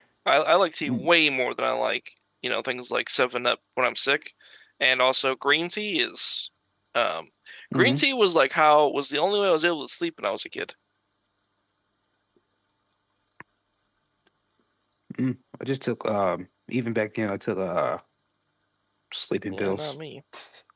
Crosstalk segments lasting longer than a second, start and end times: none

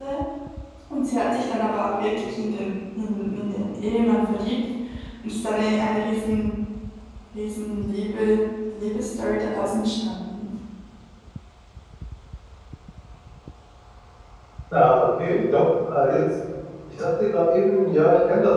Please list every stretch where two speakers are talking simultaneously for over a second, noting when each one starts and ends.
none

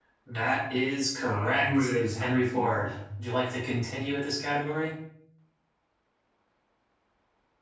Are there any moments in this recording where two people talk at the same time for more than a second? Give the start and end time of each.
1.2-2.9

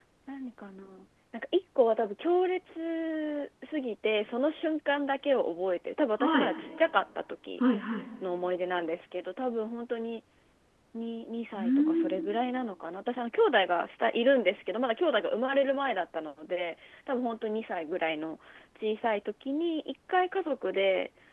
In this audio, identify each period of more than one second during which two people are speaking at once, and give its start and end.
none

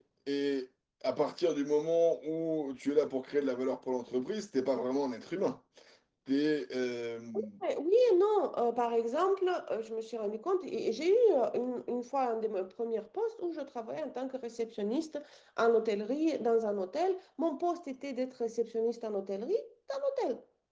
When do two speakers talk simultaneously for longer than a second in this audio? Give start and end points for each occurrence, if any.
none

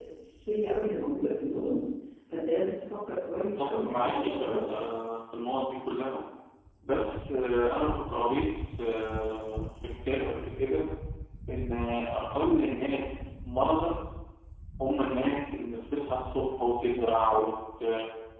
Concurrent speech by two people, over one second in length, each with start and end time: 3.3-4.7

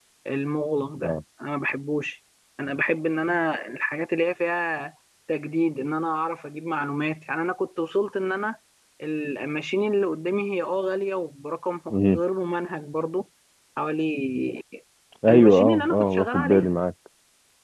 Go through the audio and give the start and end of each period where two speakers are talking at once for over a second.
15.3-16.7

